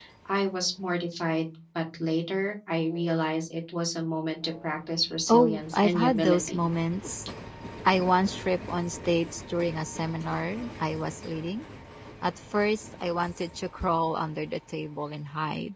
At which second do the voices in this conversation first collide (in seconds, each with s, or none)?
5.3 s